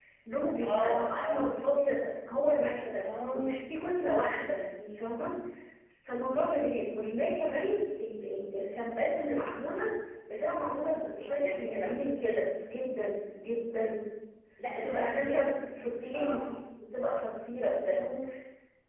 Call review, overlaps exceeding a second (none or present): present